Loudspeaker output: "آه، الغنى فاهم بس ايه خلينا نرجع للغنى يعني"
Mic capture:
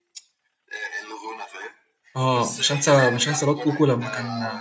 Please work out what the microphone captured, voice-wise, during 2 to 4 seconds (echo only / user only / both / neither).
both